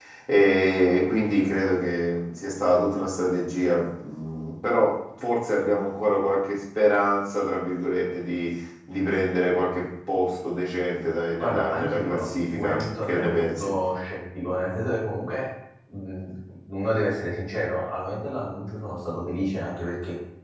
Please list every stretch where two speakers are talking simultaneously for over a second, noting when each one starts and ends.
11.4-13.7

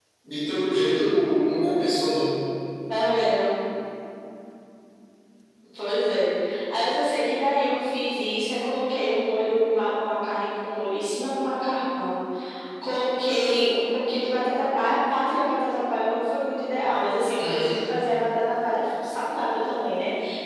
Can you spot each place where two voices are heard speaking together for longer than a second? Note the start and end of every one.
none

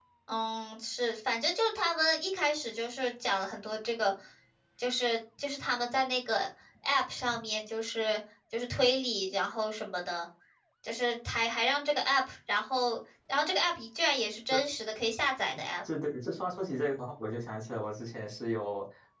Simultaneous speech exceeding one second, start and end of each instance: none

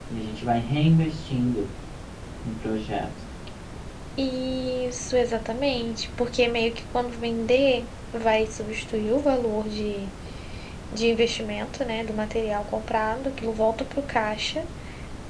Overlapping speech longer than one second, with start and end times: none

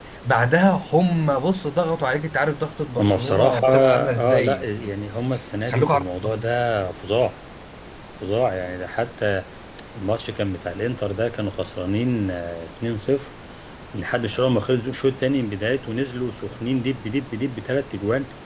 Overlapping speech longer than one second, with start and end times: 3.0-4.9

